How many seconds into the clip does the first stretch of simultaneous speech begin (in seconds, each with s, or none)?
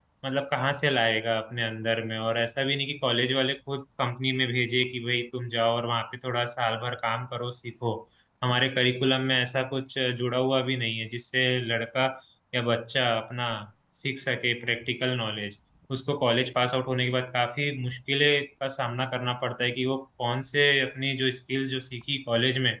none